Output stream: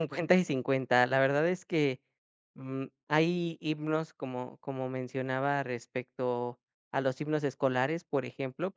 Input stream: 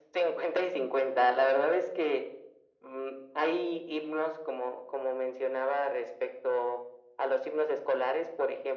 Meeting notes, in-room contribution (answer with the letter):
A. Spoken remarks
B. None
B